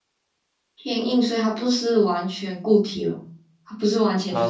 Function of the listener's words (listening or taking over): taking over